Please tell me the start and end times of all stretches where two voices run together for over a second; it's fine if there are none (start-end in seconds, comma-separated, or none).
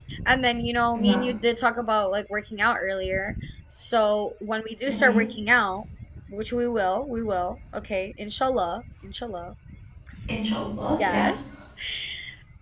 none